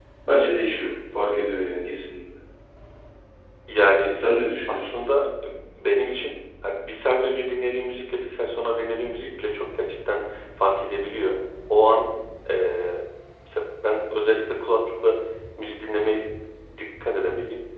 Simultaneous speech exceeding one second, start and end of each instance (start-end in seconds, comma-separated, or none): none